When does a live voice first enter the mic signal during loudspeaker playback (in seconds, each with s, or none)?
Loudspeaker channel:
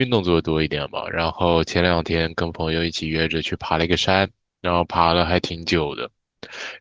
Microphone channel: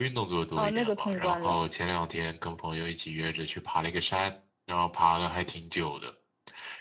0.5 s